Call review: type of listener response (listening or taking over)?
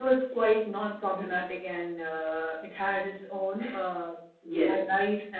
listening